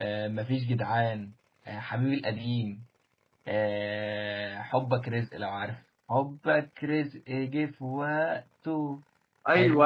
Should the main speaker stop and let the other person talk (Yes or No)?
Yes